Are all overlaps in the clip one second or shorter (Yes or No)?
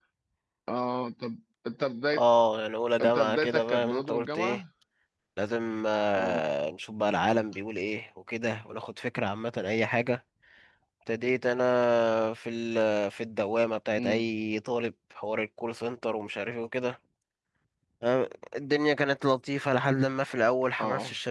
No